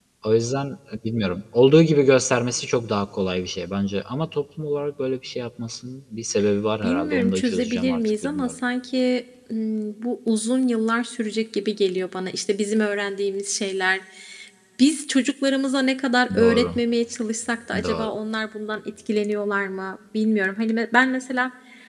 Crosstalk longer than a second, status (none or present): present